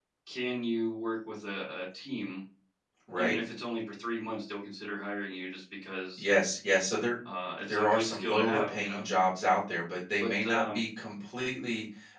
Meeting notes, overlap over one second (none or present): present